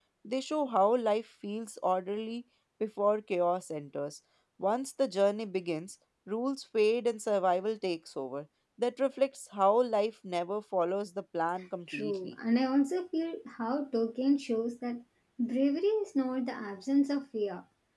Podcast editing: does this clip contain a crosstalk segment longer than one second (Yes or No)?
No